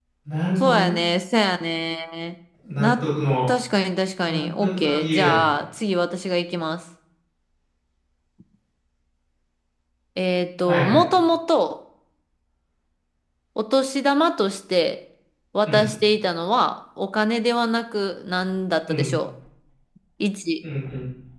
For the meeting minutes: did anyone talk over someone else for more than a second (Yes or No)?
Yes